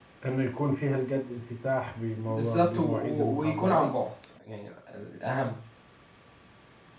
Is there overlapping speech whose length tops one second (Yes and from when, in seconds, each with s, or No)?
Yes, from 2.3 s